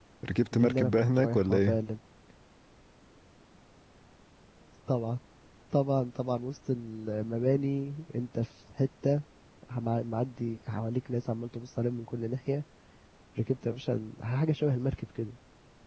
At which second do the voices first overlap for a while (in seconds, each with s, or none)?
0.5 s